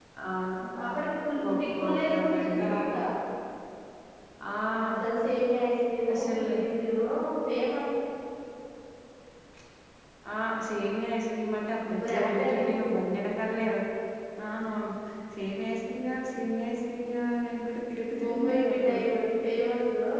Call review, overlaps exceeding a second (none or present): present